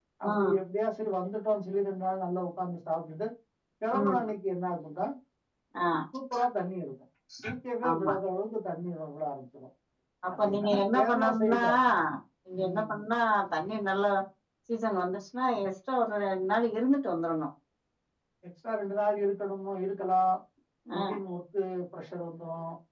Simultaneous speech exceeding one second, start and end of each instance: 10.4-11.6

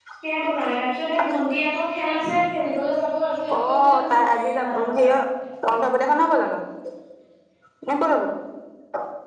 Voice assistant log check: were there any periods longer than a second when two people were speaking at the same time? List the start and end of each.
3.6-5.1

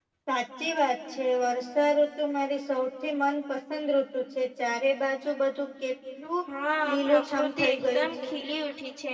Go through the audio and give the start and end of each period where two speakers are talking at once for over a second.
6.9-8.3

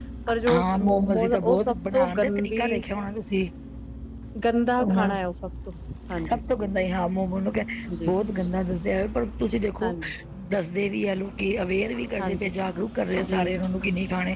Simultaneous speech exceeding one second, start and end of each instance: 0.5-2.7

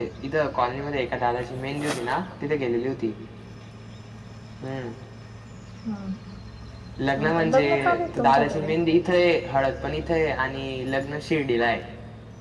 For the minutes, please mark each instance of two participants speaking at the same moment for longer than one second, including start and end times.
7.2-8.7

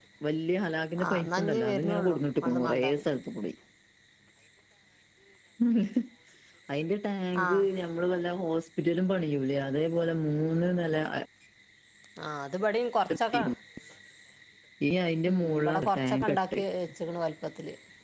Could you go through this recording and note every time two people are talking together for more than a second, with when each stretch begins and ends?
1.0-3.0, 15.4-16.6

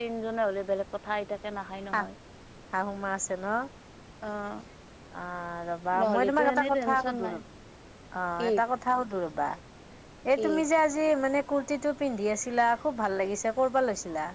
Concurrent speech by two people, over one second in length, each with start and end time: 6.0-7.3

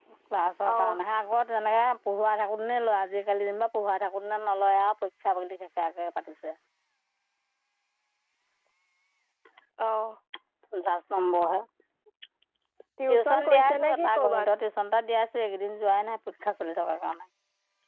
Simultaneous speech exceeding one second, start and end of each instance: 13.1-14.5

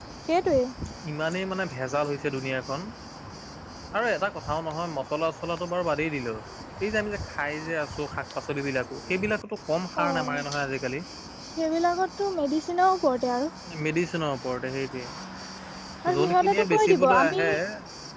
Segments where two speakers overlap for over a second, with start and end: 16.2-17.4

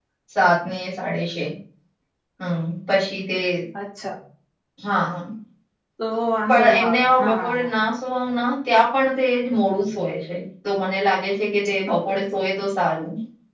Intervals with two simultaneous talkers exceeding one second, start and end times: 6.5-7.7

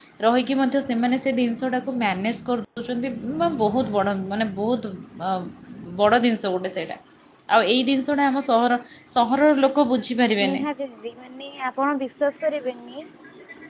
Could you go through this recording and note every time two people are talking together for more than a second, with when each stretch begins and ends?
none

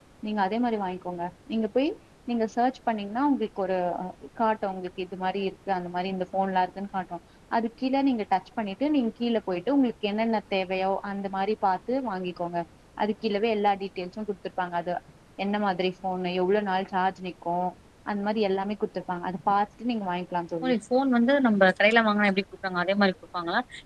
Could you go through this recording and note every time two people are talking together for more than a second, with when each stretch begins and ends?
none

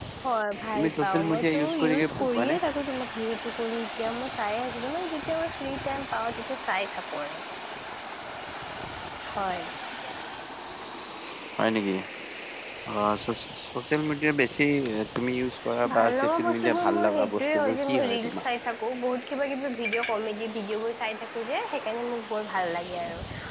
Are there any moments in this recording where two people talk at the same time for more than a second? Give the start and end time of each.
0.8-2.6, 15.9-18.4

